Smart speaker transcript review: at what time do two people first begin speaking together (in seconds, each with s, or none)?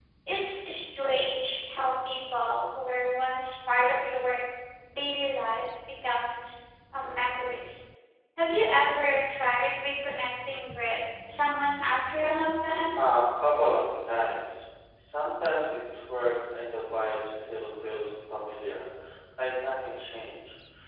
none